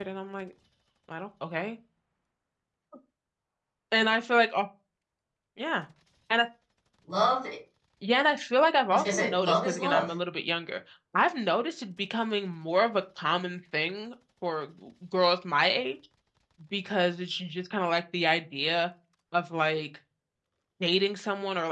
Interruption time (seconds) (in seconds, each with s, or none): 8.9 s